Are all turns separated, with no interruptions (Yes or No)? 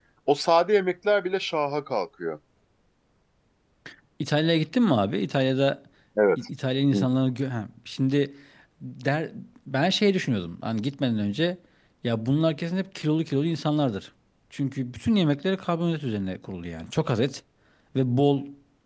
Yes